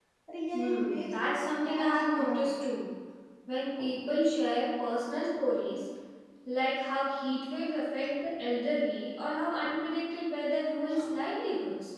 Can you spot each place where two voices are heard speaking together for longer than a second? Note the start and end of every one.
0.5-2.5

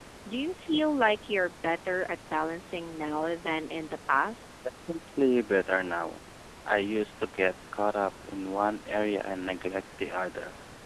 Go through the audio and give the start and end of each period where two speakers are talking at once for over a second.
none

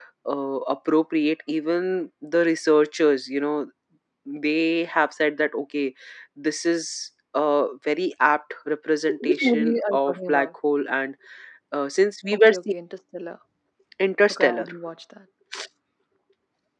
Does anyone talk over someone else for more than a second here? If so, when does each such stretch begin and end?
9.2-10.5

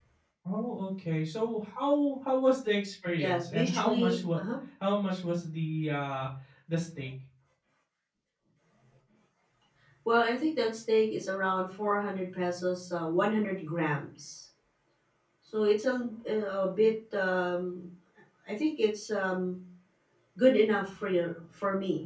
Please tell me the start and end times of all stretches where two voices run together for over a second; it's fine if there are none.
3.2-4.4

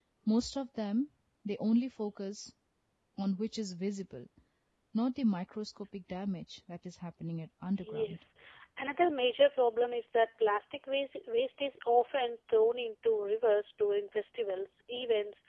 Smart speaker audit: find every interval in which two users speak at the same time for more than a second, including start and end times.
none

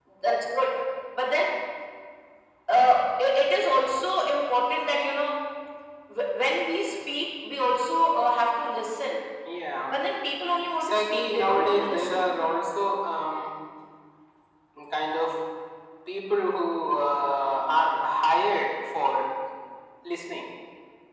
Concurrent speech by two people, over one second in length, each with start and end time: 10.8-12.2

